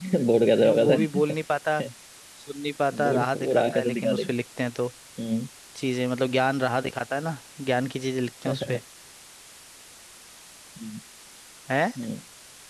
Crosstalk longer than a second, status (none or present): present